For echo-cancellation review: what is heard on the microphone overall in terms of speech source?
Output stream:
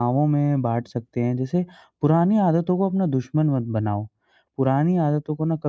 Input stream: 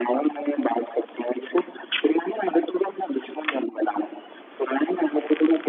echo only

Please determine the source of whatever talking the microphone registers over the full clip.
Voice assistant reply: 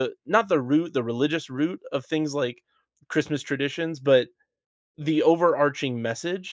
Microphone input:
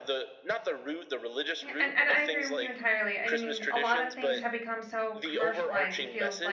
both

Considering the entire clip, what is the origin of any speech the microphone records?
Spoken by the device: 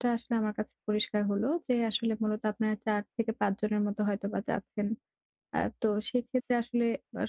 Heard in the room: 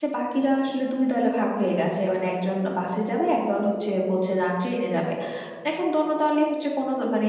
user only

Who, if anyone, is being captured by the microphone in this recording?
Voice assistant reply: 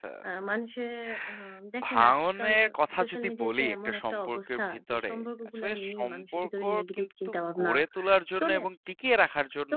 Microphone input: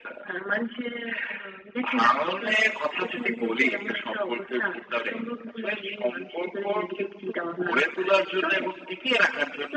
echo only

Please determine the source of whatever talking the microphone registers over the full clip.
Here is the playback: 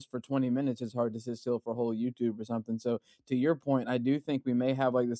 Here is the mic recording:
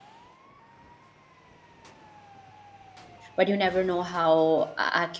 user only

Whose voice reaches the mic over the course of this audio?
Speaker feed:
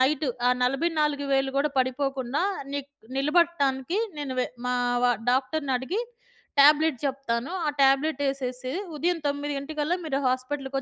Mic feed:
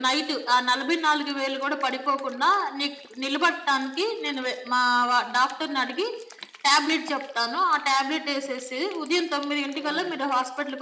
both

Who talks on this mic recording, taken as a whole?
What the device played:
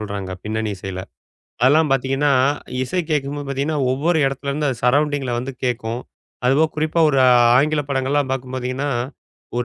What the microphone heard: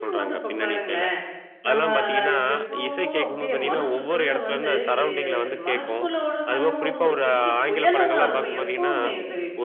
both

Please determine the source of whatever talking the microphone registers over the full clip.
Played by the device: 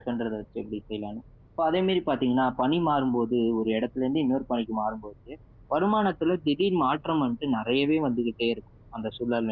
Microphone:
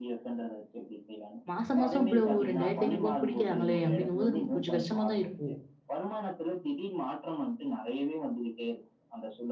both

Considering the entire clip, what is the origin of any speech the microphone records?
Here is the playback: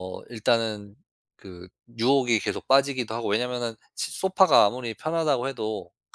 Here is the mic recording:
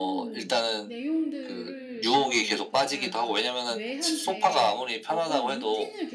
both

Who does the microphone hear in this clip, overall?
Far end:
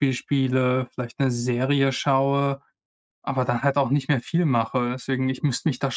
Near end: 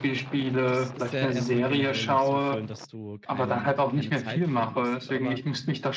both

